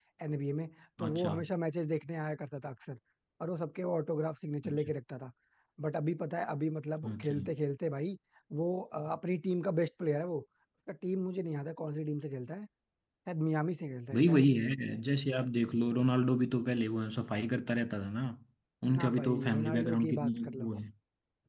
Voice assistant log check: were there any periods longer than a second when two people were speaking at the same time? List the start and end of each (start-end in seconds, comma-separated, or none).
18.9-20.7